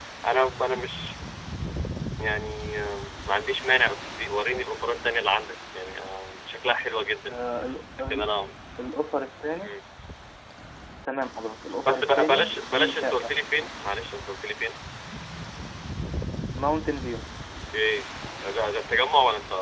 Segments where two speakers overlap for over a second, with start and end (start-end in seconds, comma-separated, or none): 11.8-13.3